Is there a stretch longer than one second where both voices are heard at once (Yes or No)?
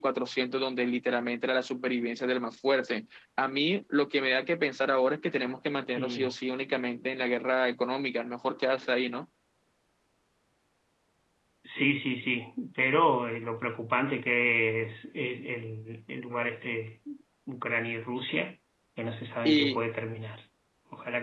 No